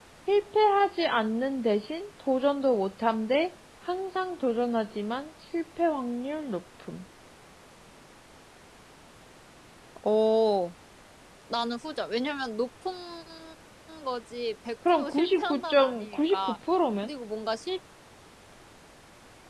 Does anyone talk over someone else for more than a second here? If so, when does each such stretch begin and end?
14.9-16.6

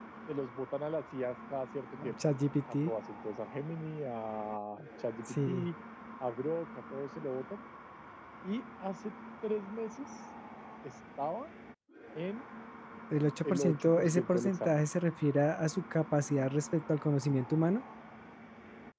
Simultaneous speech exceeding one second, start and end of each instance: 13.4-14.8

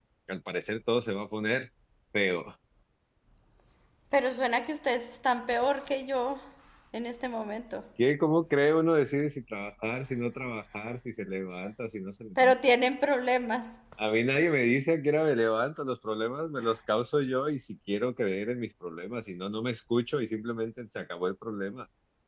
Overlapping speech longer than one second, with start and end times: none

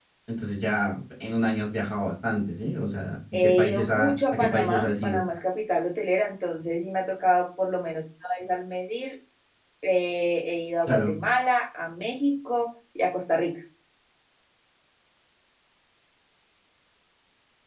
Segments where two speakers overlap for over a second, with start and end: 3.3-5.2

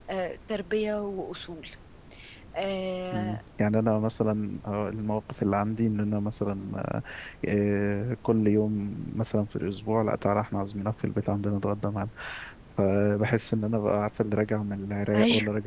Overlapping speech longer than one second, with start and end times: none

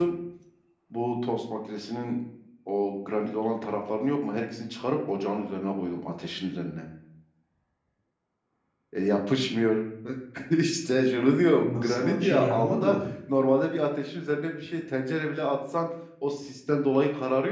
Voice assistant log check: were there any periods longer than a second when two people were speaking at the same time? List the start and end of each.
11.6-12.9

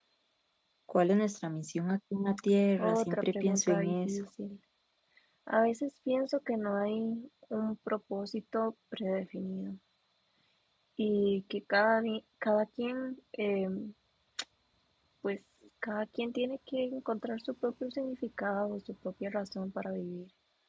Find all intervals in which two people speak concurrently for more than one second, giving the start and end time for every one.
2.8-4.2

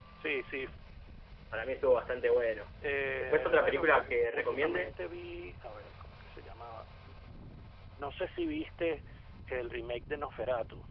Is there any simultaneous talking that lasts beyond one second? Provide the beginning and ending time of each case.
3.2-4.9

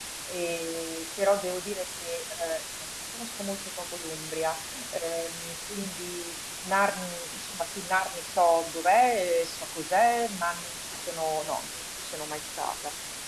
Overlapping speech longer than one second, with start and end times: none

